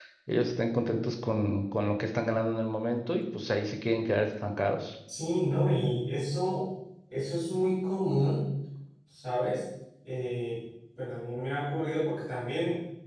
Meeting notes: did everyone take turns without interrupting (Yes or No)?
Yes